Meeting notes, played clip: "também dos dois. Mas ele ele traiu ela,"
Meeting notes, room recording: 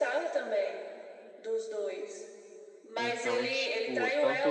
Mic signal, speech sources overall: both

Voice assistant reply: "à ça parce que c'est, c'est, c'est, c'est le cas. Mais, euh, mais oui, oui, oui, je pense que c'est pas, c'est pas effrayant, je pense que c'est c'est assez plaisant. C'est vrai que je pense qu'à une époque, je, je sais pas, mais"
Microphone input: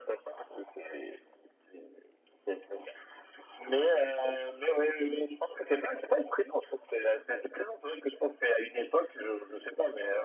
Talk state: echo only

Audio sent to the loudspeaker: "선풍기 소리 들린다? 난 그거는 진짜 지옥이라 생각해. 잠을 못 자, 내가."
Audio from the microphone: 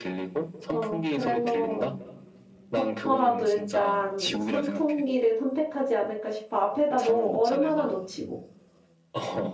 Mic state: both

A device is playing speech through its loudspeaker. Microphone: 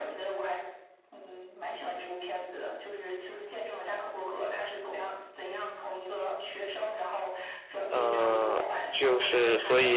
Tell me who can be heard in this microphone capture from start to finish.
both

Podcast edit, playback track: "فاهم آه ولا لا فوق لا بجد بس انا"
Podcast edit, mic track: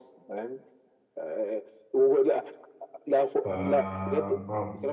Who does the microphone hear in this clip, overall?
both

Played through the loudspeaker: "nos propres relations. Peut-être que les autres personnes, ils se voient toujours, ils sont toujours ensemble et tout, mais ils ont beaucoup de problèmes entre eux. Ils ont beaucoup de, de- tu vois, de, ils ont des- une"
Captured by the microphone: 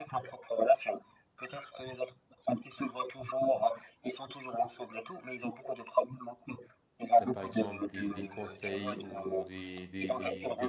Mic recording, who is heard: both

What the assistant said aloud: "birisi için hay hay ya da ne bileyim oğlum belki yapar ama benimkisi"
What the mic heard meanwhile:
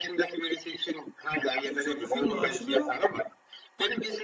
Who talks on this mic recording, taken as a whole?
both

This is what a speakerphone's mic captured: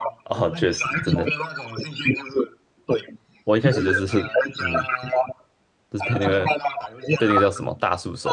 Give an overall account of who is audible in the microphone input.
both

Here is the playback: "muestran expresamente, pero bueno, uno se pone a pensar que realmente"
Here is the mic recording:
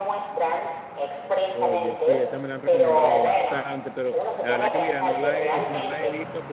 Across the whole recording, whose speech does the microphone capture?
both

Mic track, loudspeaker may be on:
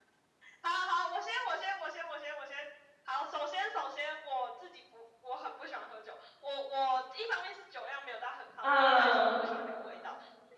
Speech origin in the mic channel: both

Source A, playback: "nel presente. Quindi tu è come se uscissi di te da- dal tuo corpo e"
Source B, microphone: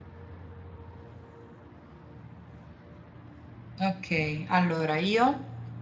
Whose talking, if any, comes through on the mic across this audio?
user only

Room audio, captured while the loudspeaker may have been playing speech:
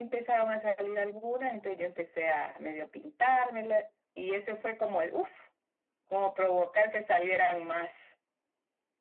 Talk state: echo only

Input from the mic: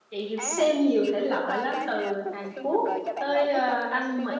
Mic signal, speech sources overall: both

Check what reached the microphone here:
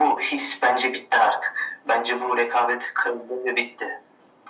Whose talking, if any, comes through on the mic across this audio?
echo only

